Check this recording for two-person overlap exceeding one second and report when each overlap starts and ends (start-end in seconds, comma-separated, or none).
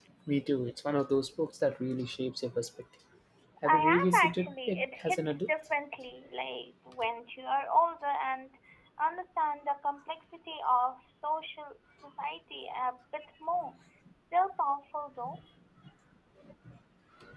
3.6-5.5